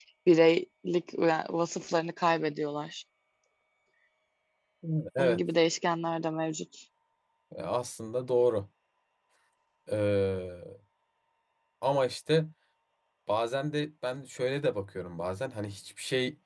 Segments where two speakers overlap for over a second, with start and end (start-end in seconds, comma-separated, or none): none